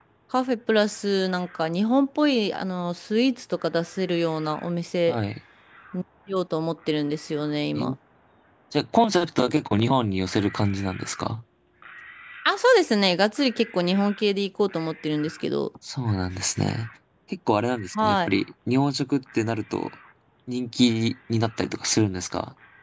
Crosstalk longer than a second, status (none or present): none